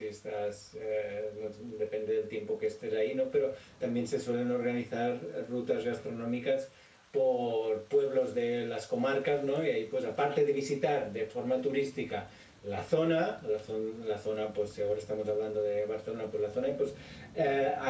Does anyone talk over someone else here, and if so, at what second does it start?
none

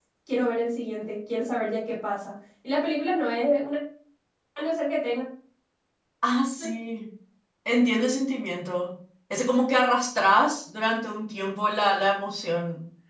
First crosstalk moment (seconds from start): none

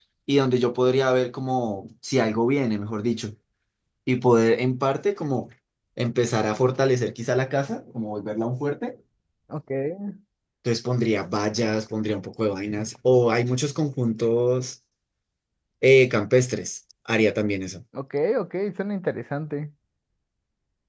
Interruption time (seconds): none

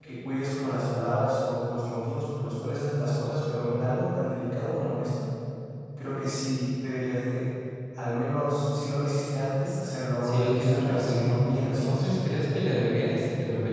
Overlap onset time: 10 s

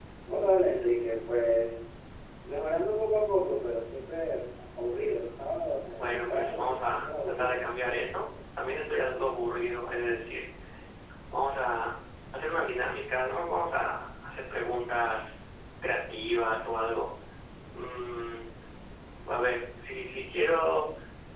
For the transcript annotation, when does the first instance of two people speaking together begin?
6 s

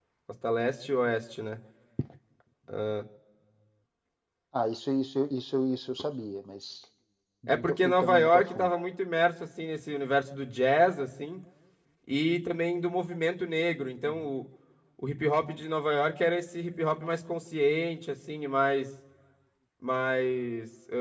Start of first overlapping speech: 7 s

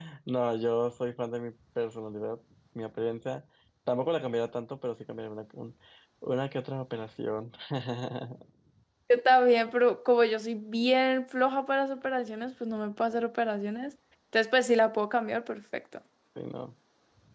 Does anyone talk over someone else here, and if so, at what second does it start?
none

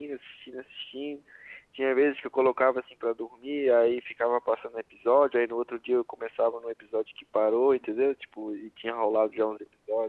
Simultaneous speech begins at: none

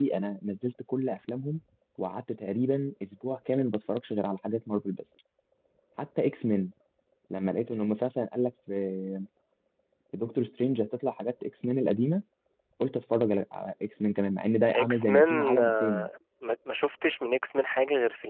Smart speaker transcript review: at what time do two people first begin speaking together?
15 s

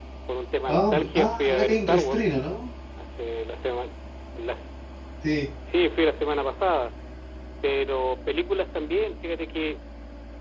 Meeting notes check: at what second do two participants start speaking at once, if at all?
1 s

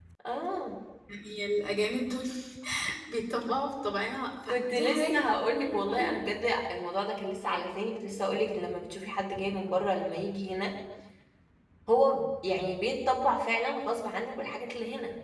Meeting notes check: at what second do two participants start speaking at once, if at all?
4 s

